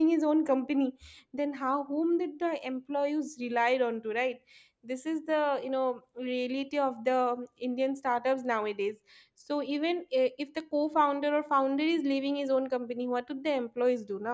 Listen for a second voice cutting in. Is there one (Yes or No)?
No